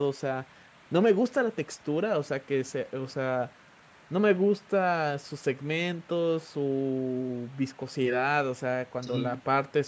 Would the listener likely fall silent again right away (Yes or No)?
Yes